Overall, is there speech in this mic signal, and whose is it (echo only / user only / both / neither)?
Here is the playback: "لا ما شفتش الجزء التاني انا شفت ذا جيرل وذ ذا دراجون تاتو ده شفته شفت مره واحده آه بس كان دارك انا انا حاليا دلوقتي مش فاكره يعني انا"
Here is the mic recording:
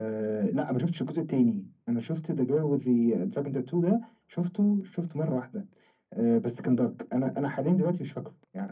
echo only